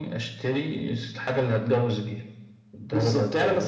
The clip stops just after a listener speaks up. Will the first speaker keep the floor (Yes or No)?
No